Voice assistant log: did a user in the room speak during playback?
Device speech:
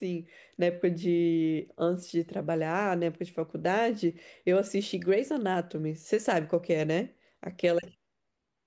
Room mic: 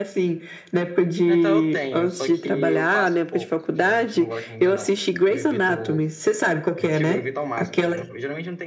Yes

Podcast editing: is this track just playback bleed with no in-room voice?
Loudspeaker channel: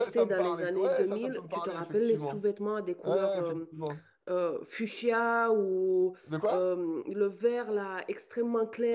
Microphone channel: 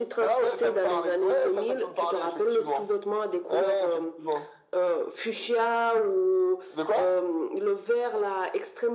Yes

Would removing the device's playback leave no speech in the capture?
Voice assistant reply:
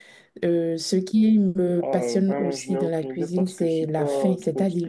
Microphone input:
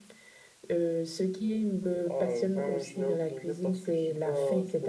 Yes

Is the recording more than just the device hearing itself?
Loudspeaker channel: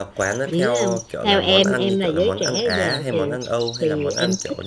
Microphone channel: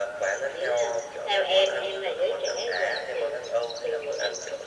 No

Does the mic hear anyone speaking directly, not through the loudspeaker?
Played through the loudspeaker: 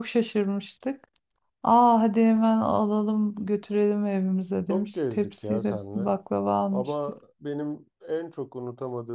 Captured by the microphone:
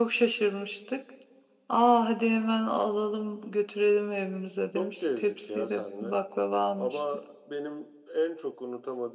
No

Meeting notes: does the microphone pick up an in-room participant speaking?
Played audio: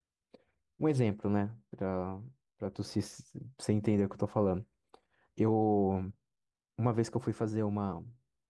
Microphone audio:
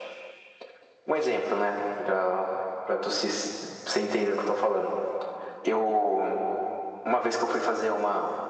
No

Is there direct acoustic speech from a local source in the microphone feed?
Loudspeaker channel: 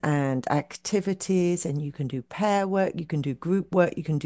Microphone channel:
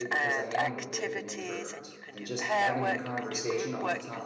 Yes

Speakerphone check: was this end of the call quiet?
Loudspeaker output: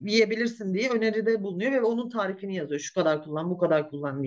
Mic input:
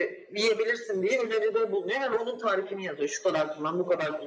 Yes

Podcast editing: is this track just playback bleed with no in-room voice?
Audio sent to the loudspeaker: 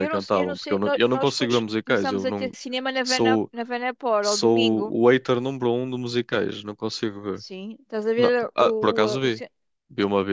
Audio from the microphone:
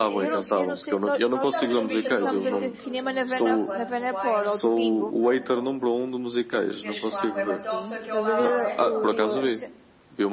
No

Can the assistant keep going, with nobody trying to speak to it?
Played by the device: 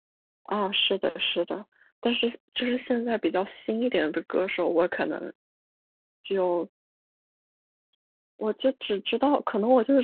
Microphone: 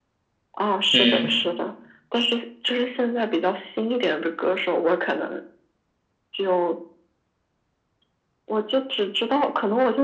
No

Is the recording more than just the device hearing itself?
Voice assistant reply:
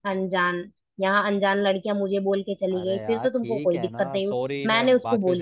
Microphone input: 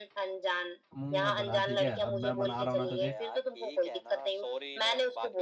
Yes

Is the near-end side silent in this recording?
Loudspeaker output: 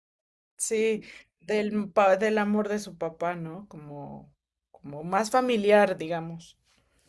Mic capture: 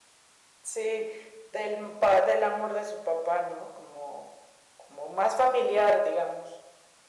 Yes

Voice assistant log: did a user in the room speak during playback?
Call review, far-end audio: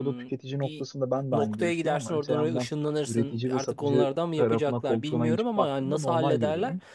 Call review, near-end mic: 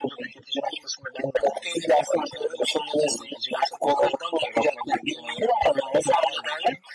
No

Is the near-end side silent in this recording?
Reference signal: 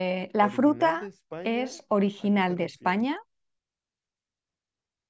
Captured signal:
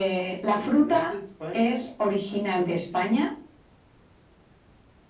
Yes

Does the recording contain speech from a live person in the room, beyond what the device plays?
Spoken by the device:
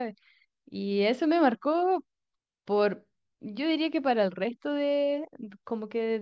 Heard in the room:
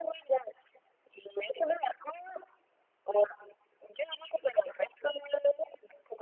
No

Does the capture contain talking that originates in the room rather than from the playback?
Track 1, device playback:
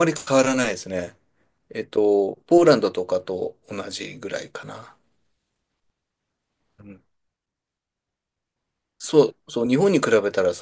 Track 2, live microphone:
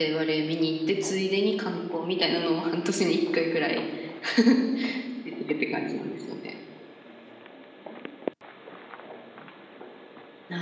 Yes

